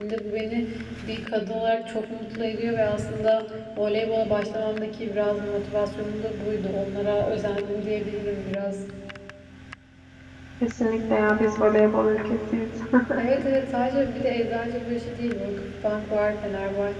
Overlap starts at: none

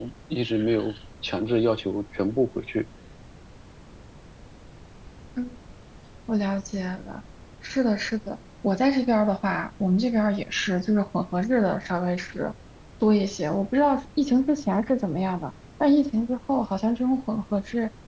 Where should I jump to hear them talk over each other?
none

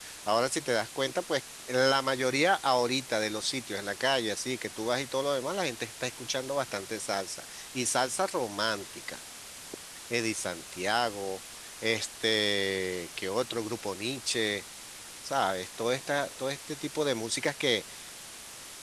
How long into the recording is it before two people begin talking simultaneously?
none

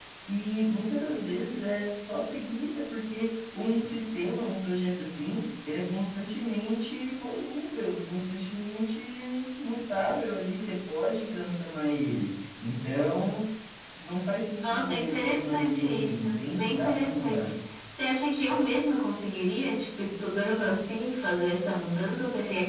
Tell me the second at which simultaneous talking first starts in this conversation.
14.6 s

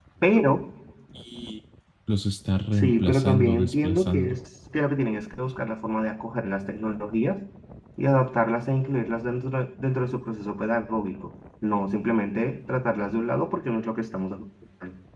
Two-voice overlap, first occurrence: 2.8 s

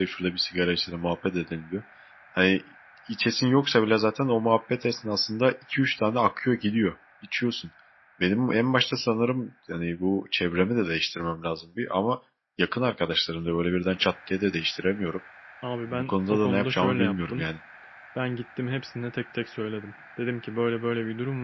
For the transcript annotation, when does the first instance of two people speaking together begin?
15.8 s

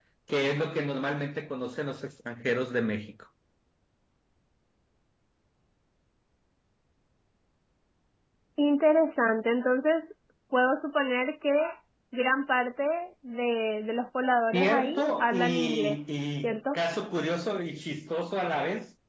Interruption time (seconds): 14.5 s

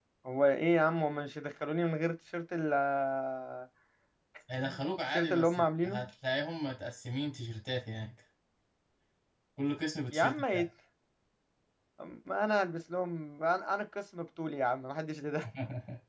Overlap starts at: 4.7 s

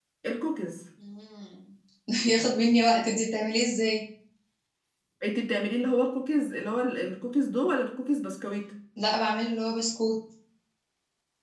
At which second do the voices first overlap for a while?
none

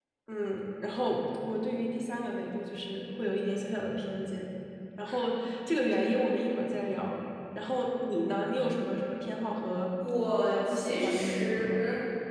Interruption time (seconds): 10.4 s

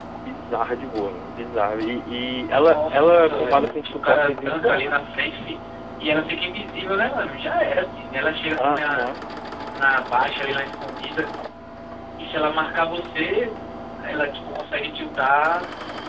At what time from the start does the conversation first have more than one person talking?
2.5 s

